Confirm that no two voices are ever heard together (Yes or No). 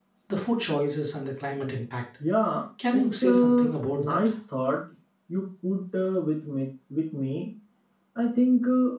No